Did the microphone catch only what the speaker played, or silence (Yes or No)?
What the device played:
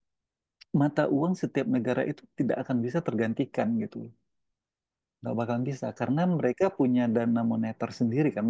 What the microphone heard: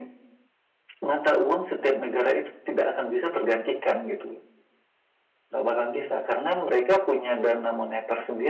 Yes